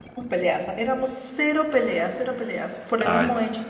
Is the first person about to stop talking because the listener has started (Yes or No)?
No